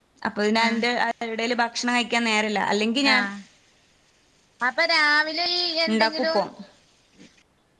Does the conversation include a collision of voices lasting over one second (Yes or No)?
No